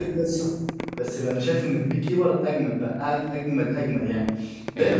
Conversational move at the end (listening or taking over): listening